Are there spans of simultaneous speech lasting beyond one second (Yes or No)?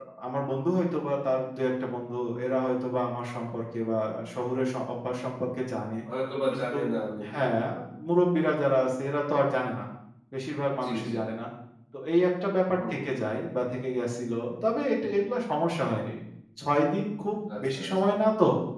No